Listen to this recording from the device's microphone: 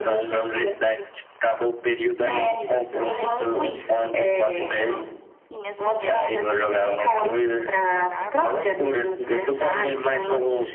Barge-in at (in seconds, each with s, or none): 2.1 s